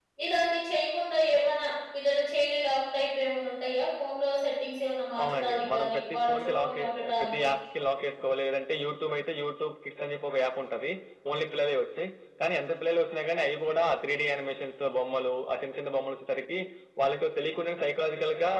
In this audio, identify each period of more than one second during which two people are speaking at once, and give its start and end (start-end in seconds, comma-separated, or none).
5.2-7.5